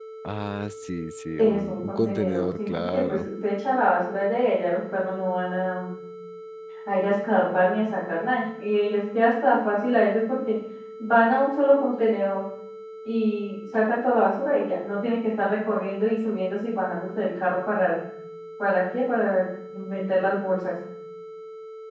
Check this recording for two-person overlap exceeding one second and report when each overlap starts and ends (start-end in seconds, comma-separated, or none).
1.4-3.3